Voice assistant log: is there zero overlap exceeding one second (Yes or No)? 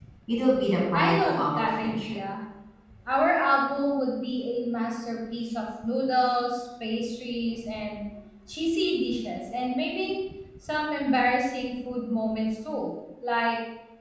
No